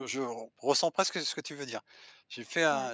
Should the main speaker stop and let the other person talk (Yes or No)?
No